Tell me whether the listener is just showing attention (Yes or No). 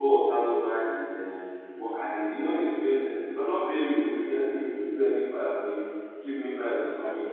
Yes